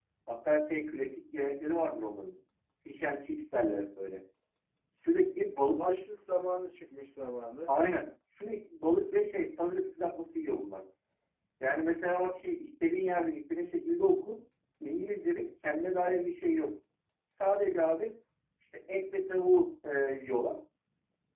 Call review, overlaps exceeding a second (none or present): none